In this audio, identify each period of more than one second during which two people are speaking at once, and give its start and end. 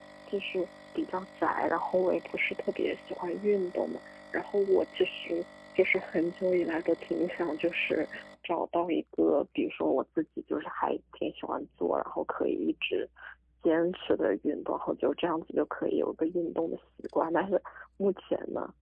none

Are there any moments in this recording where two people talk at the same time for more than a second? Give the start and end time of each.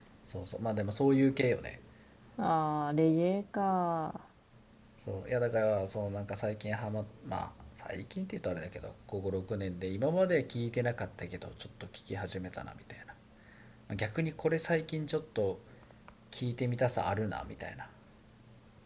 none

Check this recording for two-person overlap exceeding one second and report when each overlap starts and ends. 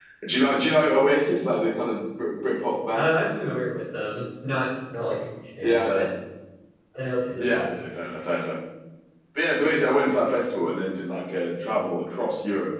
none

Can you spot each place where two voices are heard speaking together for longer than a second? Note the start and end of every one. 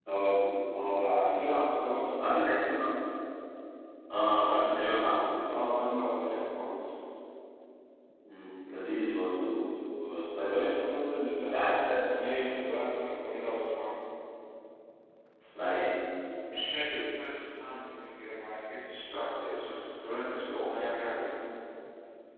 none

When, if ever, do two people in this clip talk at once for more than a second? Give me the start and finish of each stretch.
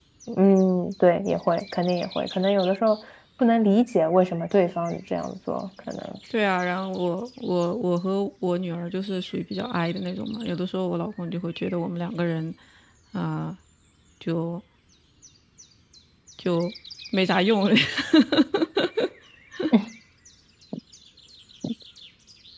none

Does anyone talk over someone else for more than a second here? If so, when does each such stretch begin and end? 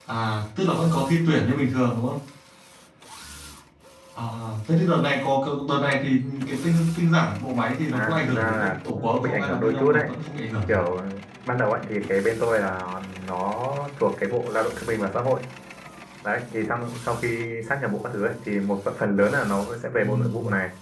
7.9-10.1

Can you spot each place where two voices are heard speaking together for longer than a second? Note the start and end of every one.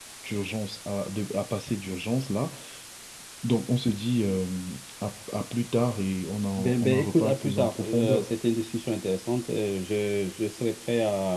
6.6-8.3

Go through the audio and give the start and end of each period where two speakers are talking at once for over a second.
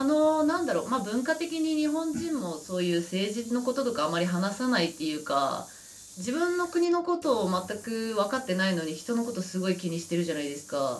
none

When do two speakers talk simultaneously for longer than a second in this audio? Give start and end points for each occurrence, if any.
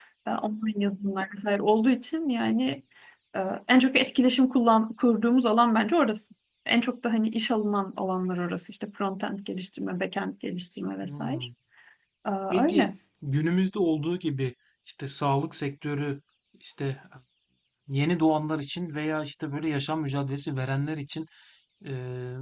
none

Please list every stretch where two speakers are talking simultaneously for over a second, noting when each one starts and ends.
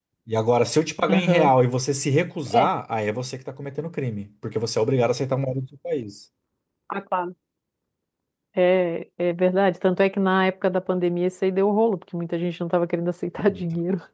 none

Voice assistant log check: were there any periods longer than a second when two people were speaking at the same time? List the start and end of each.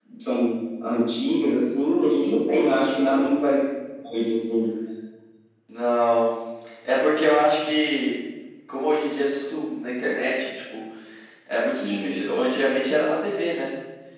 none

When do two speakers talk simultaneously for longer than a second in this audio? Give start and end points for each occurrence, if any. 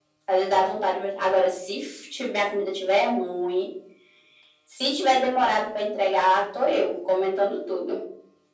none

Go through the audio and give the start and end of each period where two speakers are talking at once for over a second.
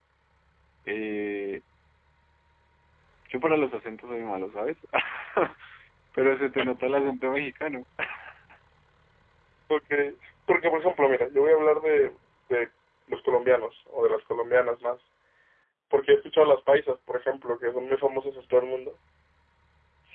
none

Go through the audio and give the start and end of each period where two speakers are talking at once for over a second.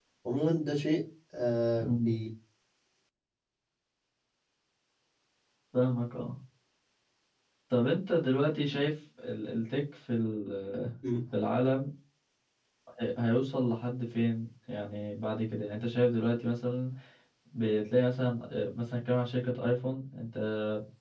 none

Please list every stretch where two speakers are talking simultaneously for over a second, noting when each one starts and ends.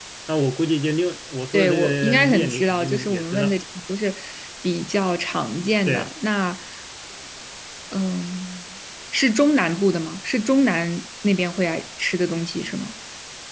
1.5-3.5

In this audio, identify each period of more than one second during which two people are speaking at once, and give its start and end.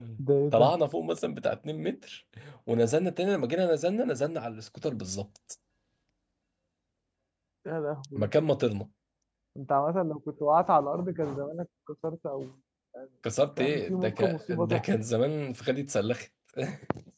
13.6-14.8

